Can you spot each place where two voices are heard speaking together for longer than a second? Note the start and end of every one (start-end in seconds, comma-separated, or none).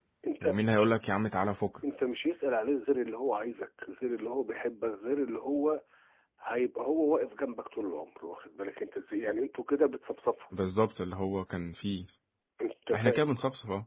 none